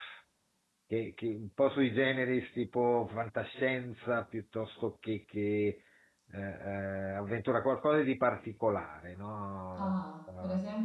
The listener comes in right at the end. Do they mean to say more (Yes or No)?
Yes